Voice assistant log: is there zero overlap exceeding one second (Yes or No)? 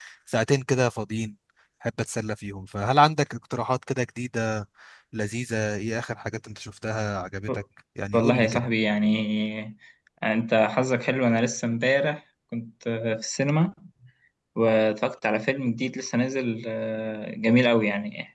Yes